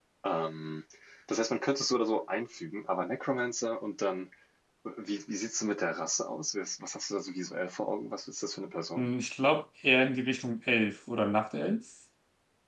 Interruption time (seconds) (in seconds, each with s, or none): none